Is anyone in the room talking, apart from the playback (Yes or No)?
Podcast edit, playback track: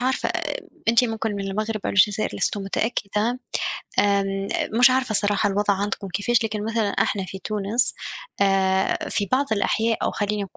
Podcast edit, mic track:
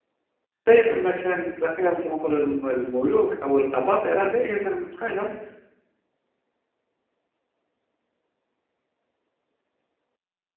Yes